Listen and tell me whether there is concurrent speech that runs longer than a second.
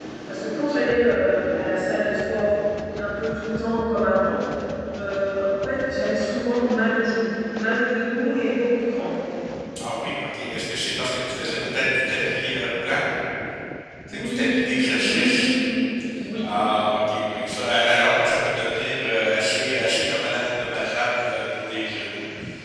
Yes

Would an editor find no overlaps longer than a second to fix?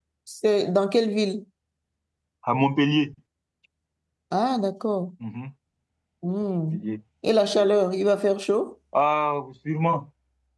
Yes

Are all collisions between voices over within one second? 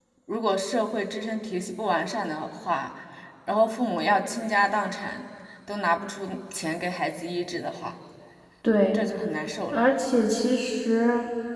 Yes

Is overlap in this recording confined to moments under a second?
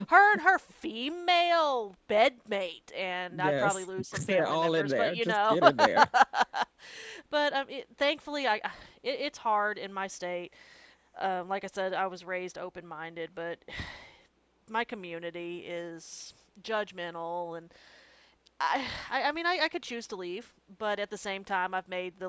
No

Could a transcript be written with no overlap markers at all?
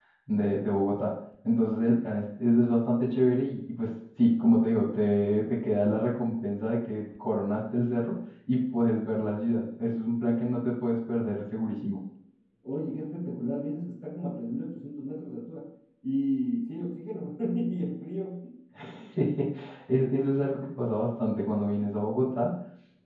Yes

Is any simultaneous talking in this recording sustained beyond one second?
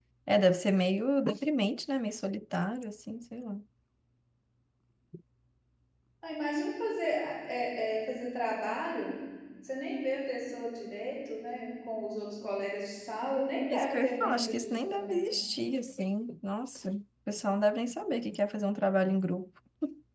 Yes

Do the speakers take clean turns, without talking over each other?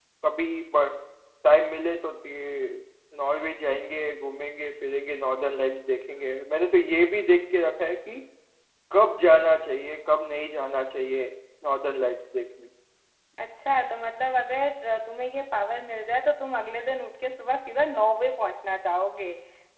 Yes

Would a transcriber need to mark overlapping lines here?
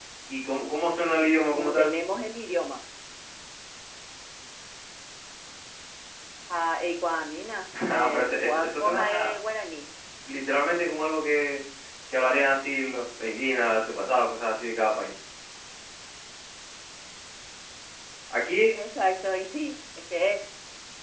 Yes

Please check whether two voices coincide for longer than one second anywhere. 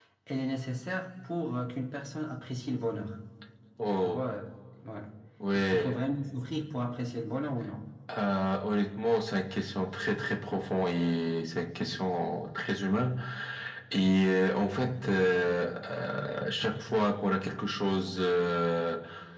No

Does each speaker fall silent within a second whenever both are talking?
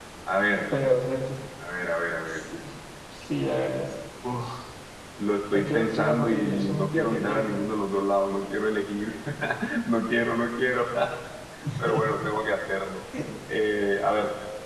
No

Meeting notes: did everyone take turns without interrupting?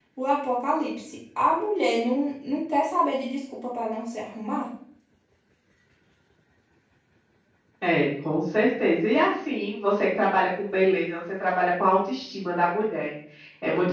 Yes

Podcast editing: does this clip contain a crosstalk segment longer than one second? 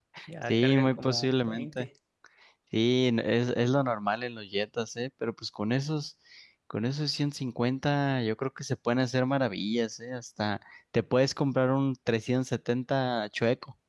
Yes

